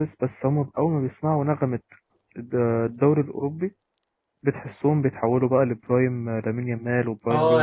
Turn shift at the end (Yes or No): Yes